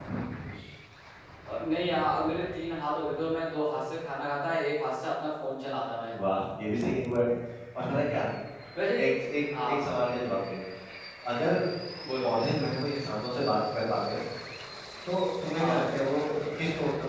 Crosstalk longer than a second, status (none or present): none